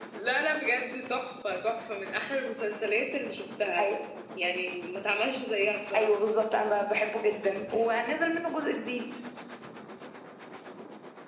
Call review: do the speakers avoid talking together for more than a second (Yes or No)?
Yes